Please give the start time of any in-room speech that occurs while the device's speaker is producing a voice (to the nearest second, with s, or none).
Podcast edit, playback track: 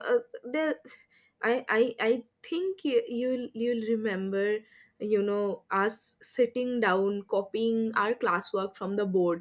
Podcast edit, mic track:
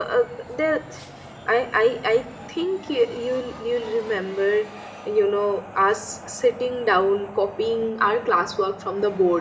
none